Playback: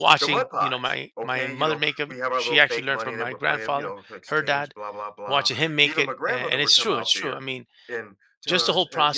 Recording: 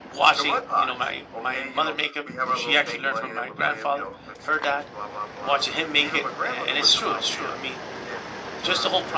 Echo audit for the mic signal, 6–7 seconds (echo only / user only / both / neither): echo only